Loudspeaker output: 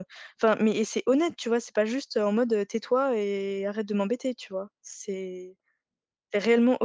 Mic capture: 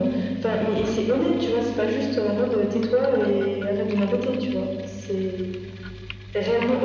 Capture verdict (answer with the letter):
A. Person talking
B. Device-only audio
B